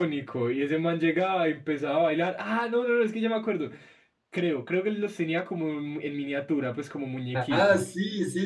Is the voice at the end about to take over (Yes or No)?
Yes